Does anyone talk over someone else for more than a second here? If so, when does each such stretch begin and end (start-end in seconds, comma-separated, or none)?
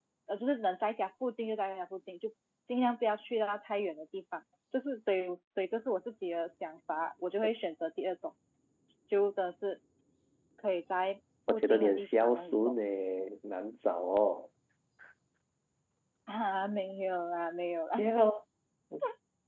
11.5-12.7